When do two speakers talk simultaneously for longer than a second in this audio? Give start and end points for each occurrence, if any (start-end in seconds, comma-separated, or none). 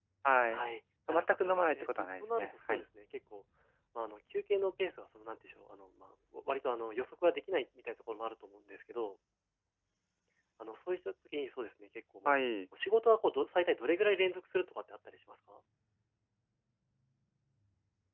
1.1-2.8